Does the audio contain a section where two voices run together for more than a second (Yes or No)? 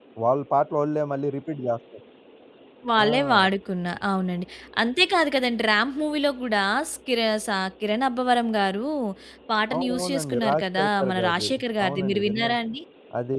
Yes